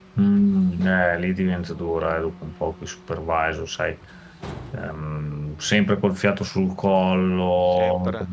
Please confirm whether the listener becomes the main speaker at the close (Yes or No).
No